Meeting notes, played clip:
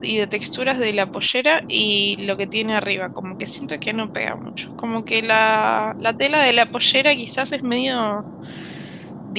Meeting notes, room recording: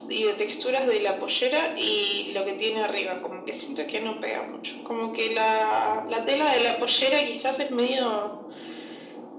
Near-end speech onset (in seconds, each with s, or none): none